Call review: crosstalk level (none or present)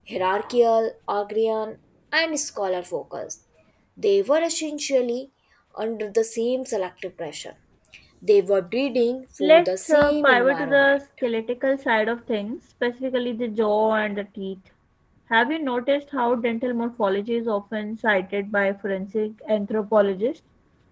present